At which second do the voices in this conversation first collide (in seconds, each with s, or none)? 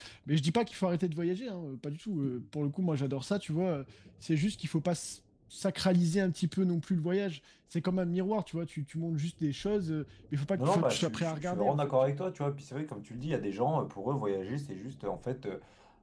10.6 s